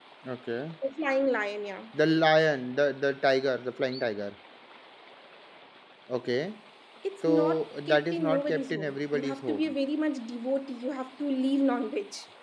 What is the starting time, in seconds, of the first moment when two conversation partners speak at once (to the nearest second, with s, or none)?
7 s